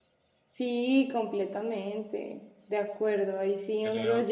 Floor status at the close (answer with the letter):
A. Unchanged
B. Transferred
A